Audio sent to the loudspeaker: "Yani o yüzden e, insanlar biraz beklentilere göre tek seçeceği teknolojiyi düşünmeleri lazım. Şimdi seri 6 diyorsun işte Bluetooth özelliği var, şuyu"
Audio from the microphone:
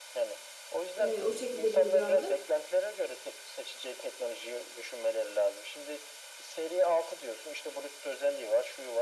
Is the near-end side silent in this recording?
No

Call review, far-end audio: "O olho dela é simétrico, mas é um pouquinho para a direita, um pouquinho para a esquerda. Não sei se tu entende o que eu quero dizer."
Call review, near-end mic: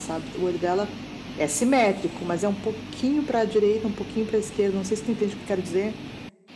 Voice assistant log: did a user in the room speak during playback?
No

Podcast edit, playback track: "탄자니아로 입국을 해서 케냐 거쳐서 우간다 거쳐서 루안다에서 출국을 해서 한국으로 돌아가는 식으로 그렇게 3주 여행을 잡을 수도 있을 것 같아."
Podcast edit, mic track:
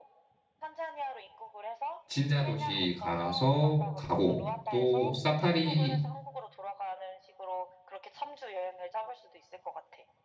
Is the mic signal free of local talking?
No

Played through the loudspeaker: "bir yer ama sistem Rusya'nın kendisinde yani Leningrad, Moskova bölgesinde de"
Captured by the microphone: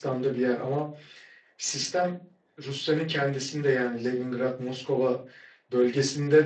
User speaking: No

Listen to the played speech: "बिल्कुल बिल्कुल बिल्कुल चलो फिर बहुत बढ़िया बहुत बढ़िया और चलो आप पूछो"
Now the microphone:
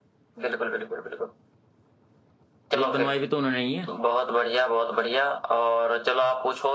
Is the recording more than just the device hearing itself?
Yes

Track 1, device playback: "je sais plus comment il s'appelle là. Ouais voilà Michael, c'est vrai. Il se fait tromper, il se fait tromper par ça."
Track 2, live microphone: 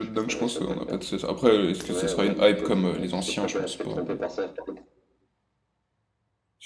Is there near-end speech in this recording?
Yes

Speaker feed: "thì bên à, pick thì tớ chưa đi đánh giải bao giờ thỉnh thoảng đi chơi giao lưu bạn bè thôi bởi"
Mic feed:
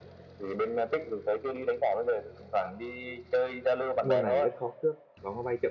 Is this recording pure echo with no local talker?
No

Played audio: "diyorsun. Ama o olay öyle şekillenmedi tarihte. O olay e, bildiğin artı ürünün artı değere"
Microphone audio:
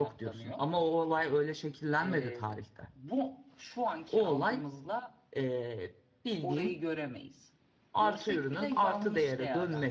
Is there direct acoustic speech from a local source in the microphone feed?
Yes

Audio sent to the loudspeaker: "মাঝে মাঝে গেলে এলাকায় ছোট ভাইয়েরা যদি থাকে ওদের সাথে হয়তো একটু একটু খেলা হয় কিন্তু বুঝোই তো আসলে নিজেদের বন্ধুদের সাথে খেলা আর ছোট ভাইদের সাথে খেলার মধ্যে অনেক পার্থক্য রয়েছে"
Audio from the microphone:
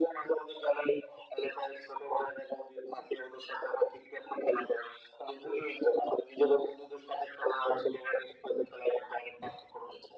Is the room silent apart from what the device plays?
Yes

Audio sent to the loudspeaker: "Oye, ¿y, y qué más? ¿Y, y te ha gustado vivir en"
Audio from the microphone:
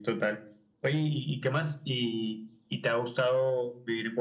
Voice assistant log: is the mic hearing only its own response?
Yes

